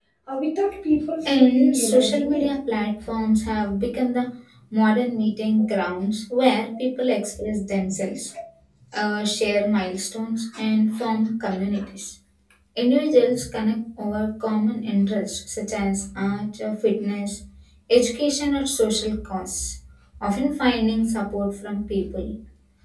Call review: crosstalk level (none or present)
present